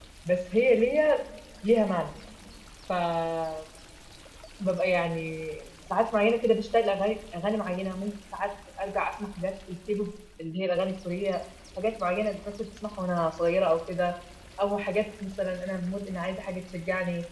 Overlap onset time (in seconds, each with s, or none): none